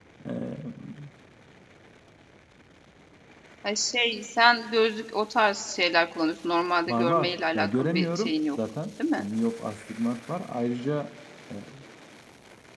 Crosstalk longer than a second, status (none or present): present